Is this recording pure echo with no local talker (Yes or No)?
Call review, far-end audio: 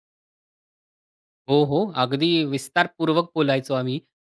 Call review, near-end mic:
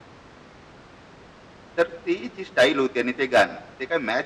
No